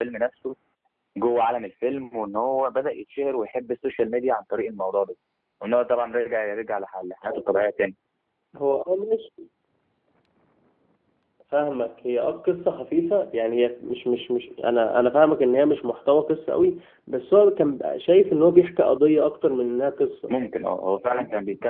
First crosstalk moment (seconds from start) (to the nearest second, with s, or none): none